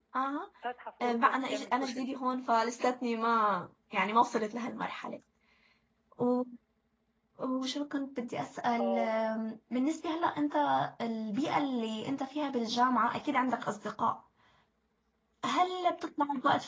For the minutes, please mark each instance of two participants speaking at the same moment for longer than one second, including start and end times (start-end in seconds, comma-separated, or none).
1.0-2.2